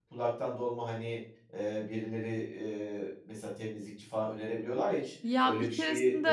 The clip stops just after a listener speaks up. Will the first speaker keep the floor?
No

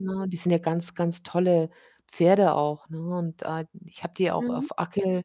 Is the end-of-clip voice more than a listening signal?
No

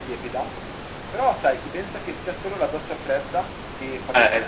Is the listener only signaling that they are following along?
No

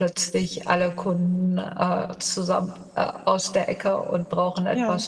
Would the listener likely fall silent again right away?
Yes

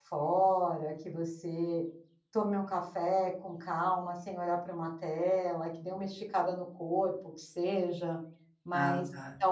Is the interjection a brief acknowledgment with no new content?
Yes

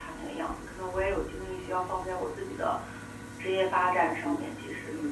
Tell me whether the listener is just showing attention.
No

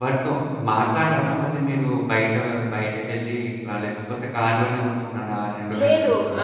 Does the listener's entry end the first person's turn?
Yes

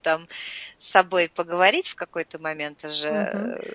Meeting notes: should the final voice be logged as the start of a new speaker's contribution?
Yes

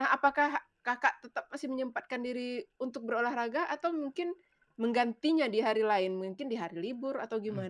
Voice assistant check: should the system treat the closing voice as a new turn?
Yes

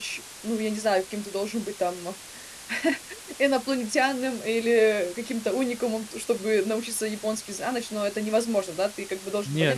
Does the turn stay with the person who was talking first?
No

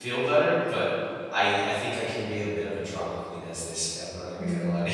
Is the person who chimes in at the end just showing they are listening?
No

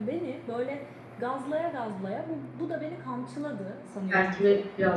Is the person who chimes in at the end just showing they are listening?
No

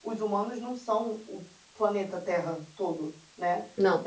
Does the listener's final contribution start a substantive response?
No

